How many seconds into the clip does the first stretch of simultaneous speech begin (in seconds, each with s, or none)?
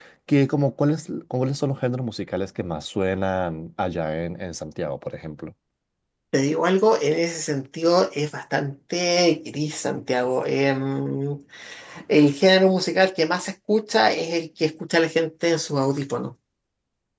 none